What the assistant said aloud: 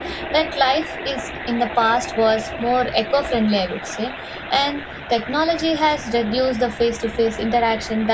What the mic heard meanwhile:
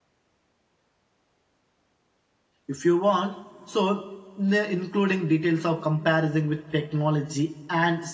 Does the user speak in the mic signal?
Yes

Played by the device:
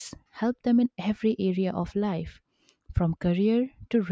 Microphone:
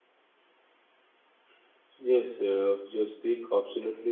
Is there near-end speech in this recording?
Yes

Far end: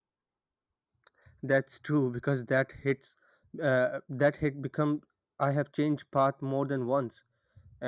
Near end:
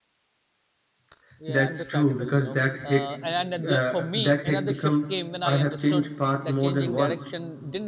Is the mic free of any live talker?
No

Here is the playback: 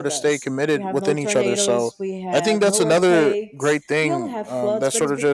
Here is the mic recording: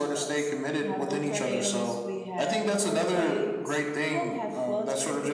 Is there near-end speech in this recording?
No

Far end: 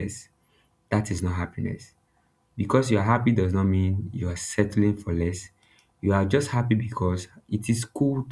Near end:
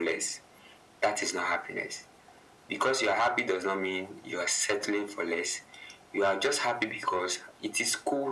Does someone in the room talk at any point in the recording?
No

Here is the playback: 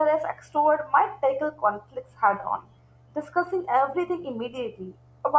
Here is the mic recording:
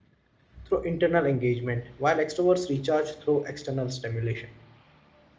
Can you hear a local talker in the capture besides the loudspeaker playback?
Yes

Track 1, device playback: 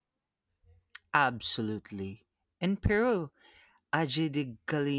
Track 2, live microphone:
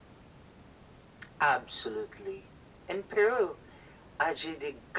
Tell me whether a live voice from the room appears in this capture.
No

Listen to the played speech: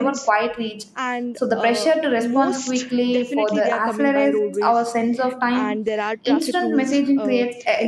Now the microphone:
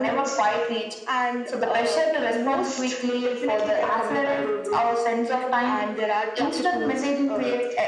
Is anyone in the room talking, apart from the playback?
No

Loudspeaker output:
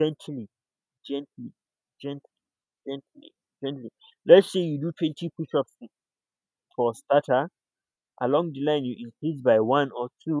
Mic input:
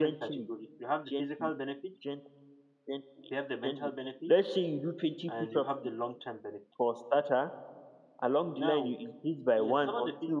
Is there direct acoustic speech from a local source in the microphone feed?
Yes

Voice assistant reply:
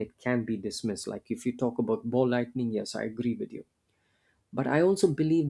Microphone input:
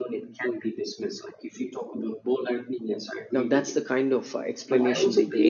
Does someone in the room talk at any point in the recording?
Yes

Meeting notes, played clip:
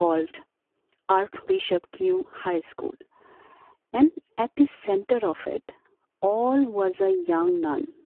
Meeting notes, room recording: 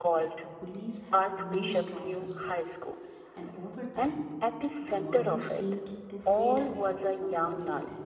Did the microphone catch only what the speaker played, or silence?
No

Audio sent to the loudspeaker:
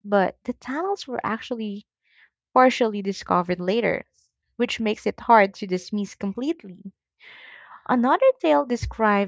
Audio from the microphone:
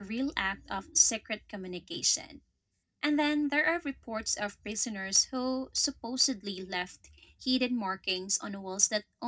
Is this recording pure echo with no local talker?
No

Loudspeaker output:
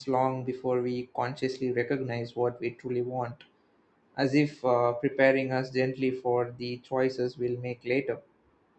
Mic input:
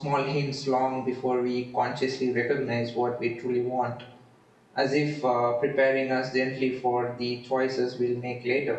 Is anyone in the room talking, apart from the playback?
No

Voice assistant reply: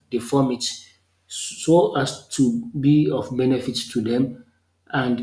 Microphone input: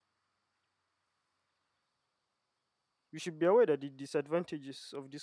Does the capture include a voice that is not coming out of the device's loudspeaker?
Yes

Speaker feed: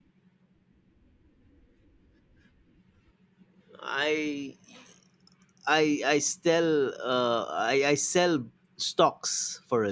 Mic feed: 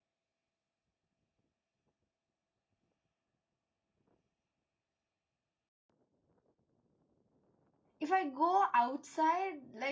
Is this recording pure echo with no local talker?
No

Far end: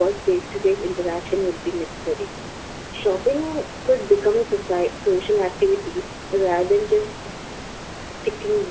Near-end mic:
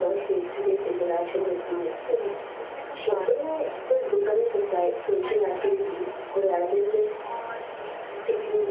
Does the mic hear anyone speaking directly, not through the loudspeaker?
Yes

